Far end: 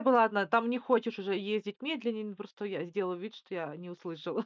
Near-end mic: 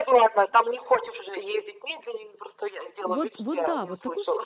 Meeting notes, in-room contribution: present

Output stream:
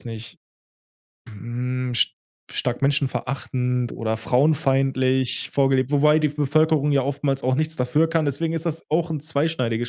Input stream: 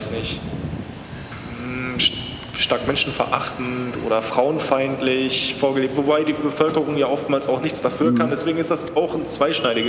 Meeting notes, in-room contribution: present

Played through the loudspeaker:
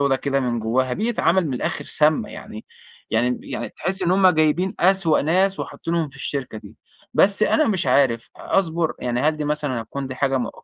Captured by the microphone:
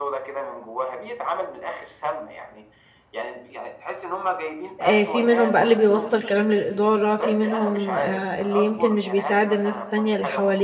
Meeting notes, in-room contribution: present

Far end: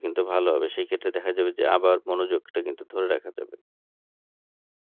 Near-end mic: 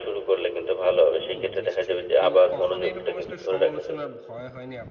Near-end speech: present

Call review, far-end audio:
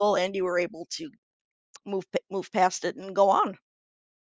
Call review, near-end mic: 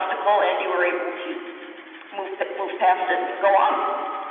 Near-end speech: none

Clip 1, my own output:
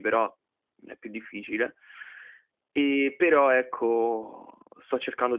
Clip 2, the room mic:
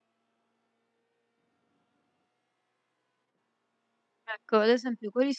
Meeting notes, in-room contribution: present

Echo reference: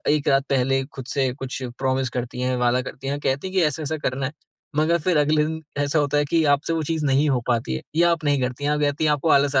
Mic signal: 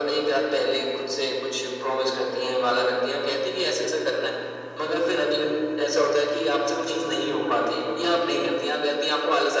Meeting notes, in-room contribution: none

